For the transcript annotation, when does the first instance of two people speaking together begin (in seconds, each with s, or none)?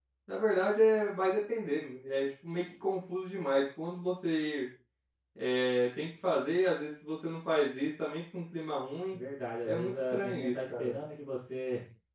9.6 s